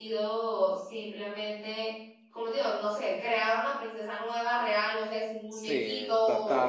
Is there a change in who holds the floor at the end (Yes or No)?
Yes